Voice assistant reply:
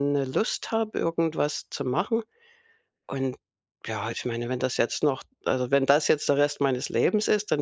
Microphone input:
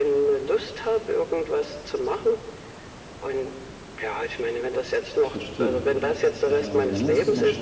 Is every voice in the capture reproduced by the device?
No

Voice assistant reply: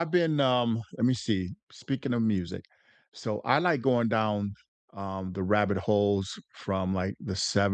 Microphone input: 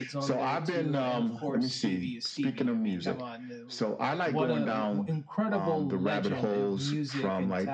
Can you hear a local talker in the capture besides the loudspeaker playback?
Yes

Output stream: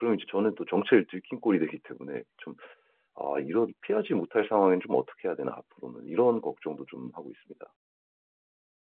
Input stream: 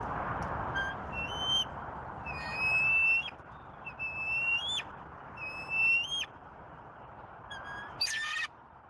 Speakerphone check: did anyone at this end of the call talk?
No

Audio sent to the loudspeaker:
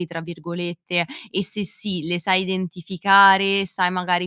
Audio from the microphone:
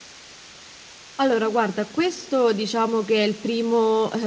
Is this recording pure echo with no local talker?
No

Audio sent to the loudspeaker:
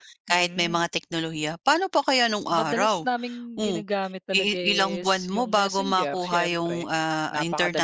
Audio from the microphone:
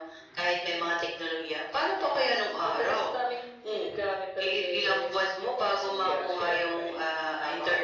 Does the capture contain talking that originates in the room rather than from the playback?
No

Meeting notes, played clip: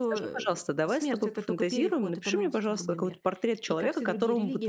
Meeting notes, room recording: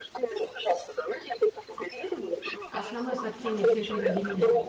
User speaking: Yes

